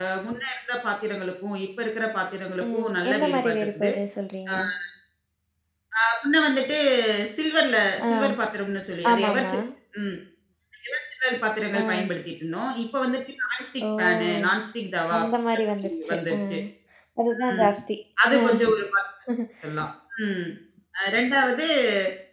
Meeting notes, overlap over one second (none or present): present